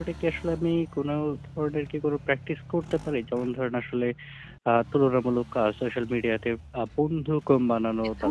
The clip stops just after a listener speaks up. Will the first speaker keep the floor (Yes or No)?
Yes